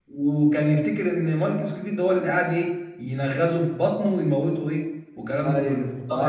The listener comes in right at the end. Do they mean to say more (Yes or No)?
Yes